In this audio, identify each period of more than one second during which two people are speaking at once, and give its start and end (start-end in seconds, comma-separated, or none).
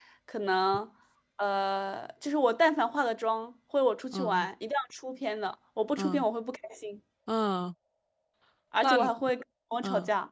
none